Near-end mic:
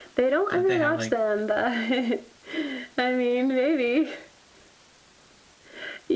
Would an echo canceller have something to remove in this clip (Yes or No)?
Yes